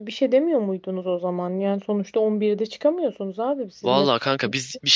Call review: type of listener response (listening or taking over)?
taking over